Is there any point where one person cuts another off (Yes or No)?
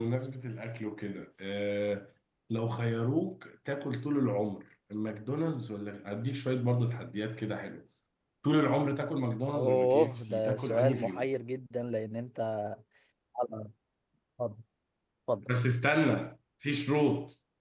Yes